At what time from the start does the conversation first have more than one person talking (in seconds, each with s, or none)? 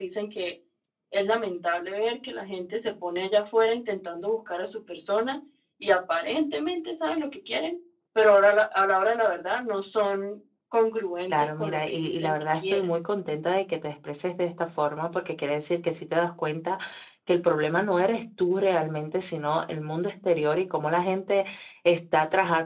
11.3 s